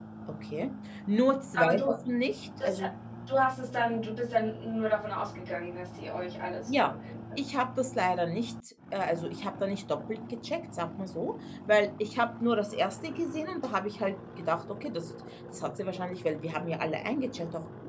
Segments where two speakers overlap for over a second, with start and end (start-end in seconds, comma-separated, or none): none